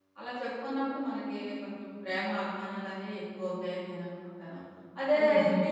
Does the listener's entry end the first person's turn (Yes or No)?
No